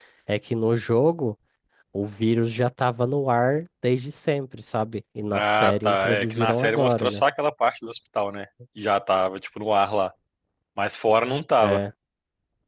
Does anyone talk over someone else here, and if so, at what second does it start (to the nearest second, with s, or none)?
5 s